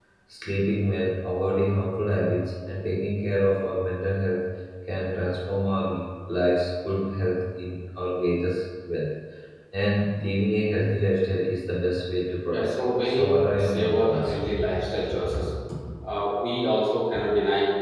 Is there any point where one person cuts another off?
Yes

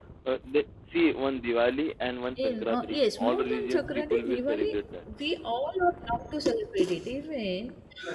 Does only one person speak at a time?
No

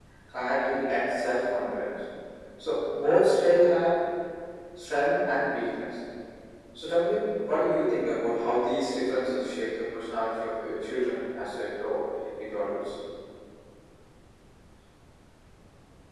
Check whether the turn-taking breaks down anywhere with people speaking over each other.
No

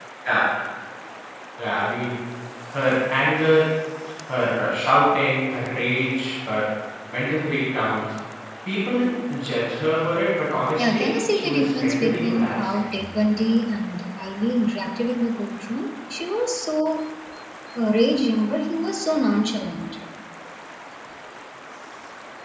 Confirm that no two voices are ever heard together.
No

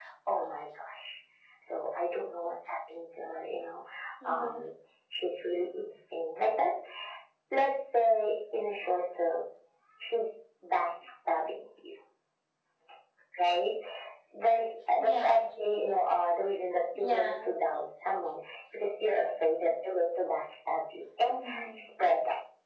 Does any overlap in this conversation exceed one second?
No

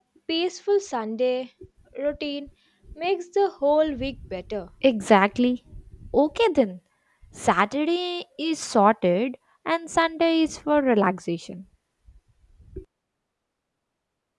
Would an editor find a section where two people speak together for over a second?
No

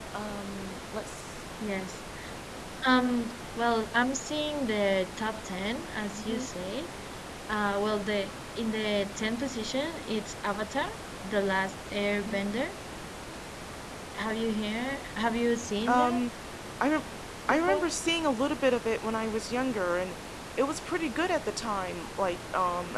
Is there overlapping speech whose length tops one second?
No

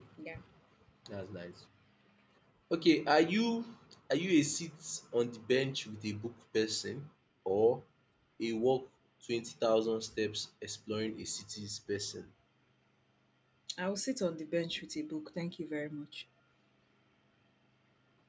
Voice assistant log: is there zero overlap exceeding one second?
Yes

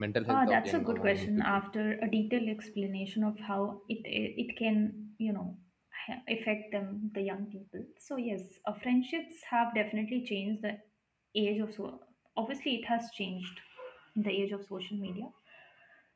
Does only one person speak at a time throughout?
No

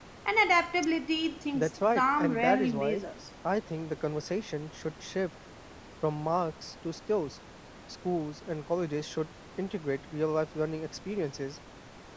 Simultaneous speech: Yes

